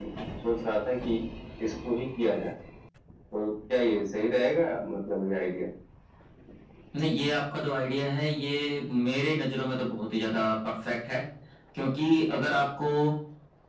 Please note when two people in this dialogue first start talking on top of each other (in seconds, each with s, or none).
none